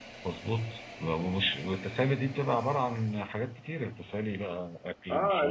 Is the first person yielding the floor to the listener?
Yes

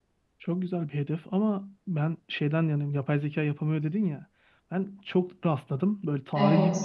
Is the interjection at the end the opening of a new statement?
No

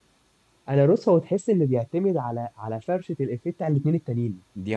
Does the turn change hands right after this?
No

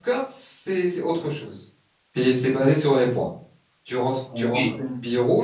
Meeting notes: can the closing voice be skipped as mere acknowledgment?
Yes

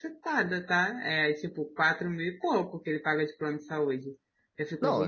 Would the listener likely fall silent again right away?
No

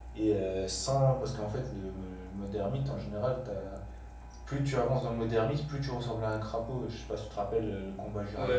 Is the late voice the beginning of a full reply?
Yes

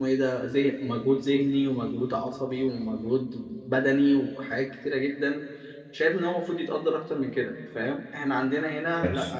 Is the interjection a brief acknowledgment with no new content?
Yes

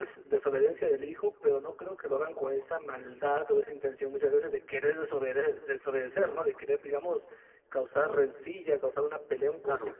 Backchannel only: Yes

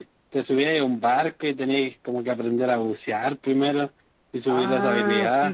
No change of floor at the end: No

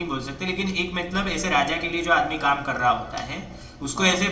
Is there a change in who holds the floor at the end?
No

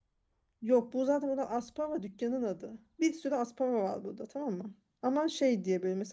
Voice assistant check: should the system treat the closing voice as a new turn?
No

